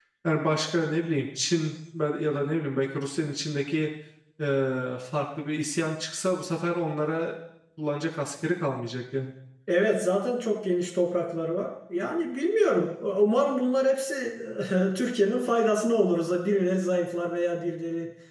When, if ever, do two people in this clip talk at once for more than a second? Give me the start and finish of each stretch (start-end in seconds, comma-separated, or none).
none